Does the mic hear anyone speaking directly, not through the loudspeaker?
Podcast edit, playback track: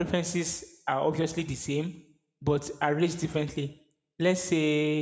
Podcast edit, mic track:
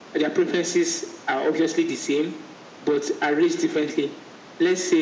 No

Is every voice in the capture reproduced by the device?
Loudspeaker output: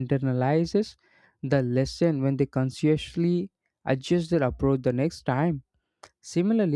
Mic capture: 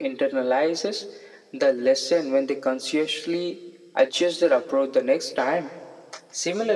Yes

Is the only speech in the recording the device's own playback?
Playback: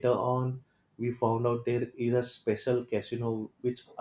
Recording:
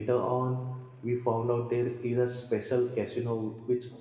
Yes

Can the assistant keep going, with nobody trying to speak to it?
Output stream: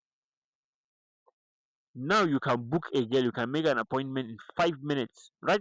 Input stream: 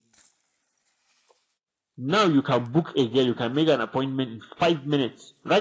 Yes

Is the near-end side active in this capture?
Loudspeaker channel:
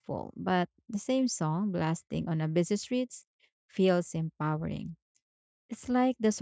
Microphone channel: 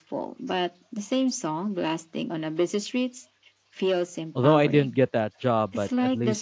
Yes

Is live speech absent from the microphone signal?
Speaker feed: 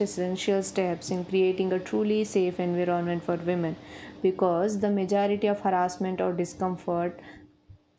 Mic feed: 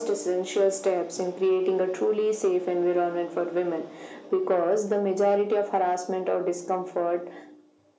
Yes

